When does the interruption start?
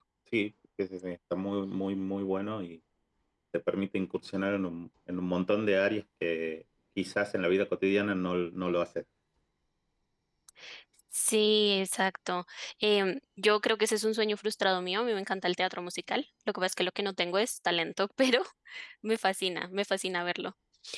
none

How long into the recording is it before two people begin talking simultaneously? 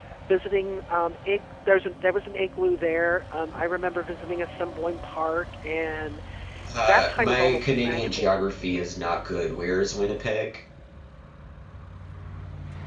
6.8 s

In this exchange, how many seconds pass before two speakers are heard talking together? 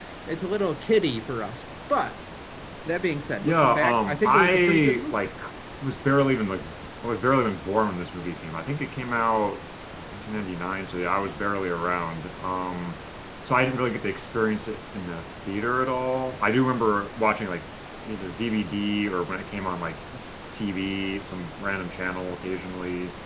3.4 s

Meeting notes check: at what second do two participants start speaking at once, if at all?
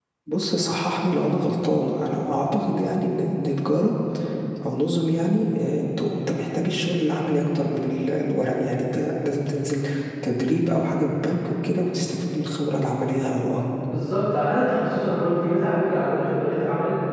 none

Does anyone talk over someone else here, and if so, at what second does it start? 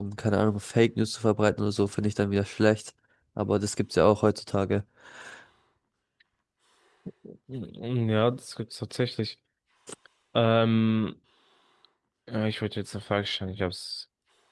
none

